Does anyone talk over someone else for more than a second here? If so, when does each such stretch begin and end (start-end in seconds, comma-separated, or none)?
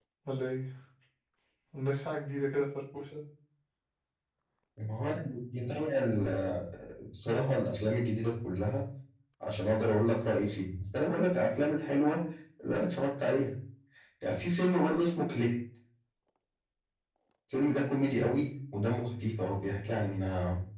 none